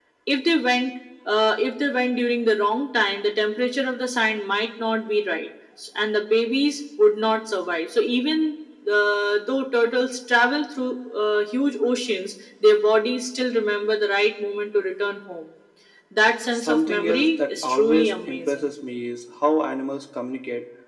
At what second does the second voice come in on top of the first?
16.5 s

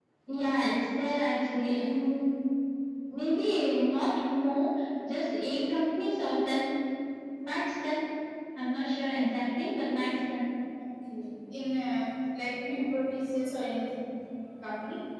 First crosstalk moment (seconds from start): none

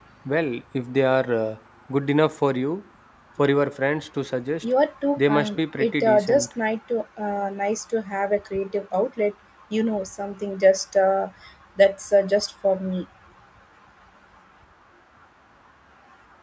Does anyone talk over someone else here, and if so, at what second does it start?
5.2 s

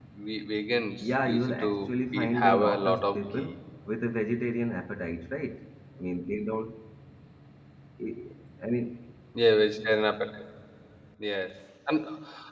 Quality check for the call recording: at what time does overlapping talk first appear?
1.0 s

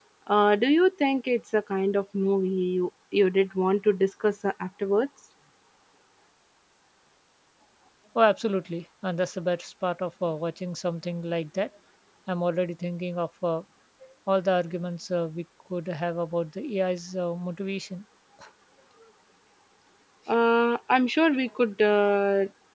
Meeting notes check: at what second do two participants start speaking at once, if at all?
none

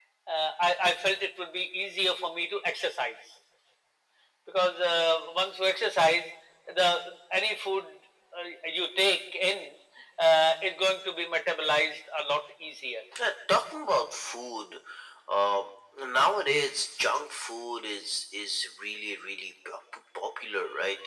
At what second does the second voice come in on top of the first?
none

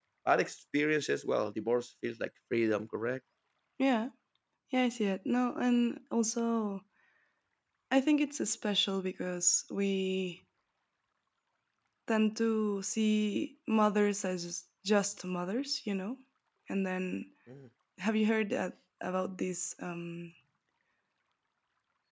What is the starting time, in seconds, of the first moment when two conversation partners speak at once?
none

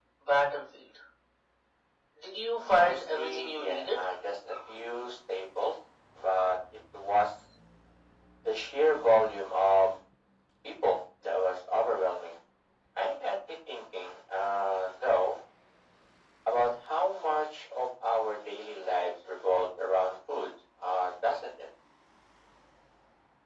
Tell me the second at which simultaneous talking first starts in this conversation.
2.6 s

